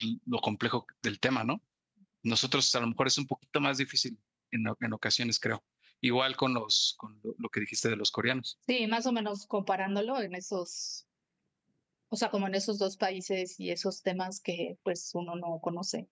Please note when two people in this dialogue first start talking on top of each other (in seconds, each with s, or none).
none